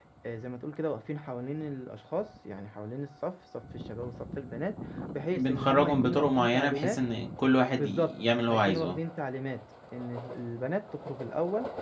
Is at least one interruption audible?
Yes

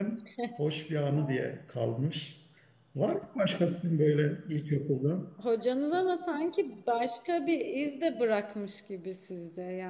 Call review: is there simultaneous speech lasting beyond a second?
No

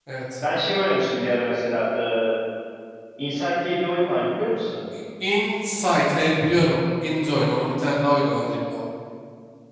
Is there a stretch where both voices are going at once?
No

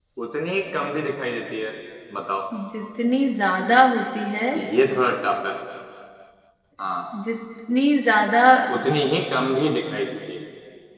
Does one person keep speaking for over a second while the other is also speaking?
No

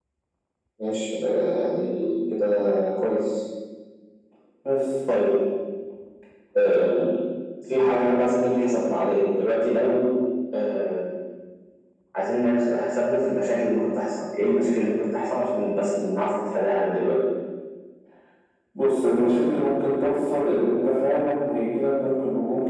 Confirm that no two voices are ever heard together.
Yes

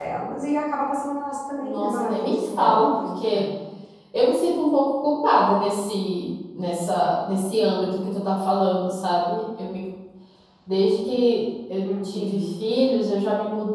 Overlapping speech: Yes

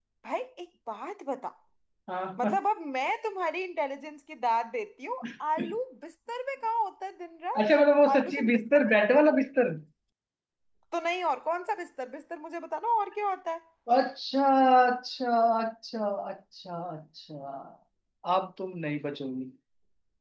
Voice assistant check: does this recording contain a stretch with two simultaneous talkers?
Yes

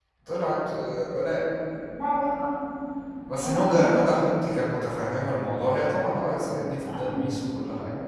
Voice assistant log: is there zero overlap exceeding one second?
Yes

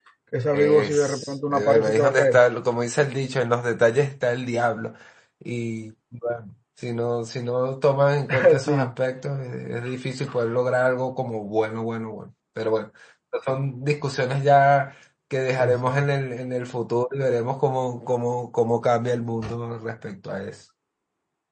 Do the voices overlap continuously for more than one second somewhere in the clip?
Yes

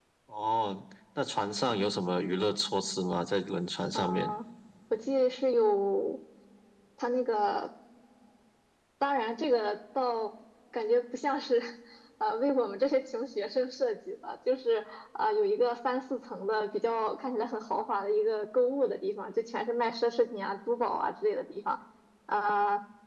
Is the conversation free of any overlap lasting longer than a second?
Yes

